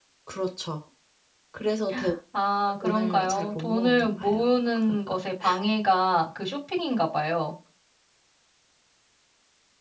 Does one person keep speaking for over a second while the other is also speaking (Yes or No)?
Yes